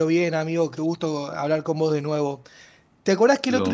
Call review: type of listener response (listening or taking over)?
listening